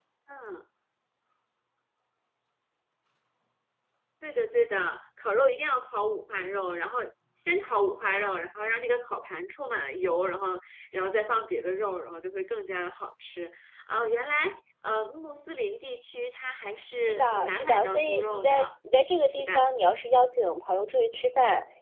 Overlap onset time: 17.1 s

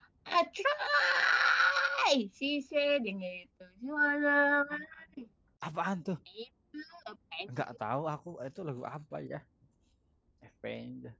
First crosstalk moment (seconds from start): none

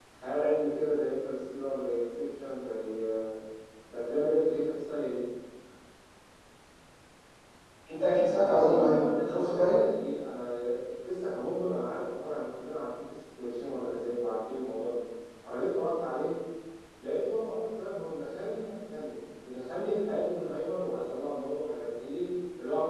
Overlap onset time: 8.5 s

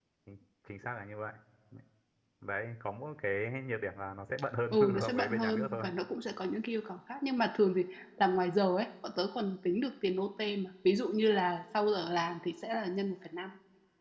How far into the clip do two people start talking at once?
4.7 s

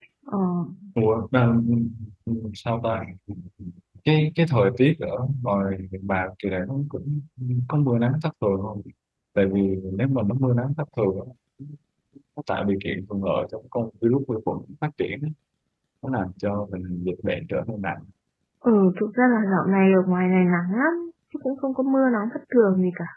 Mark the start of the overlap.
none

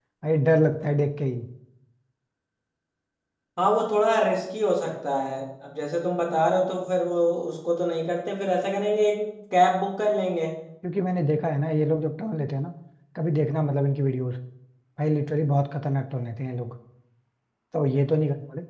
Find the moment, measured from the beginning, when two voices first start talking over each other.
none

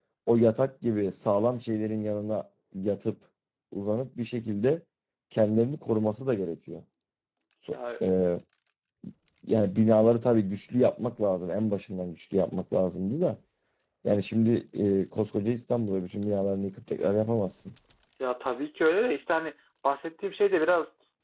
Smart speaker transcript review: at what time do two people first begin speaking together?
none

